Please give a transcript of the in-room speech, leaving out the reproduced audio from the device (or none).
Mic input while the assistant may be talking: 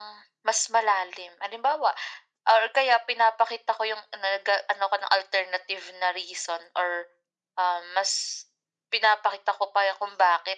none